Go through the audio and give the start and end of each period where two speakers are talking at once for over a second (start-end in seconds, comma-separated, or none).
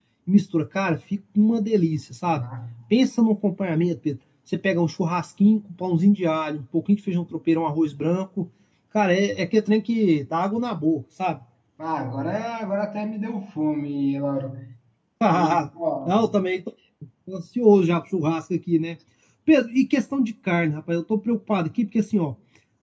none